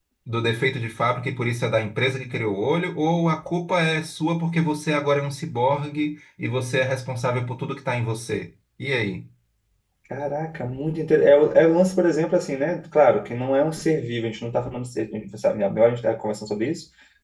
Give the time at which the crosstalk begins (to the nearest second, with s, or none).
none